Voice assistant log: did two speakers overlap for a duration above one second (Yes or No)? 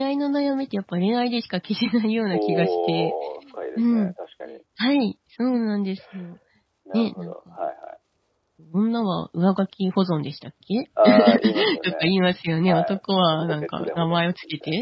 Yes